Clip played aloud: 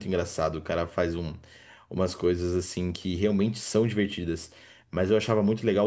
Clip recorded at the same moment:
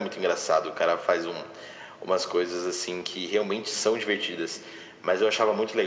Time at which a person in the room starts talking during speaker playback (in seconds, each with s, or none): none